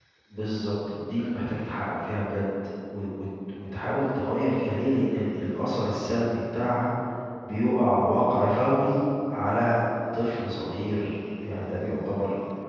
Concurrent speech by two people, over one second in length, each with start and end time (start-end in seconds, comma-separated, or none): none